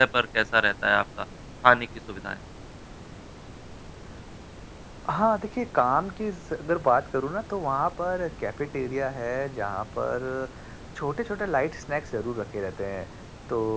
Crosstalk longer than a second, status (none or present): none